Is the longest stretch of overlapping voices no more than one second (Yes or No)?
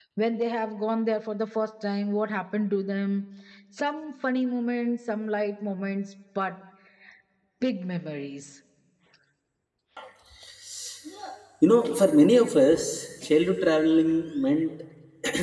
Yes